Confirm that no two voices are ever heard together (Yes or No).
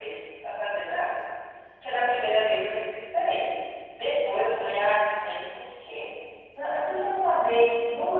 Yes